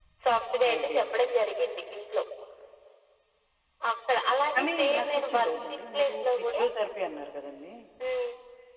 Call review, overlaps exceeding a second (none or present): present